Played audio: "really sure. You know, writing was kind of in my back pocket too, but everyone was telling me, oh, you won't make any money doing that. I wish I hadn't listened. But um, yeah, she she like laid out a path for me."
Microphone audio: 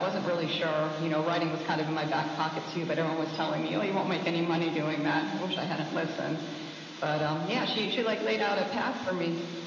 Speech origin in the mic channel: echo only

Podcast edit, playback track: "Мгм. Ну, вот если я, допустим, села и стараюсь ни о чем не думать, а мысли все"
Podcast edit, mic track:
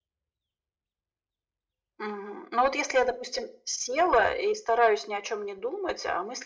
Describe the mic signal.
echo only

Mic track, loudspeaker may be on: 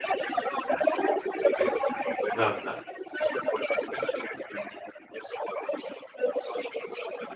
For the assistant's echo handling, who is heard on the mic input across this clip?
both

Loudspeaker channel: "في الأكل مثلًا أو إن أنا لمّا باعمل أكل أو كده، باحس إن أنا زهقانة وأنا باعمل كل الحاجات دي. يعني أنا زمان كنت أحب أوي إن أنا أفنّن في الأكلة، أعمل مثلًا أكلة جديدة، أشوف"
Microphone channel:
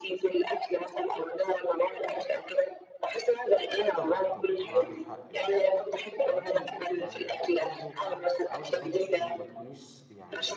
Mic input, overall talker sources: both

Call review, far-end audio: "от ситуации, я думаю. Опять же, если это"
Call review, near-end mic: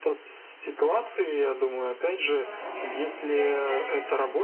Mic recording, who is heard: both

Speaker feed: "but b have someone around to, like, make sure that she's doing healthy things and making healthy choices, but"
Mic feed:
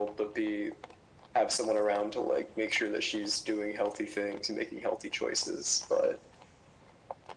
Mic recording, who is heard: echo only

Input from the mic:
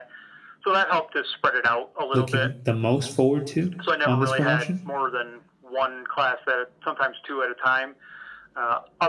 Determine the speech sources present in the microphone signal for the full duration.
both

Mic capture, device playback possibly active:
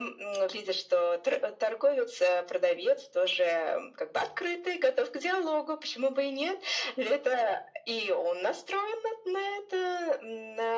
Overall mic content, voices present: echo only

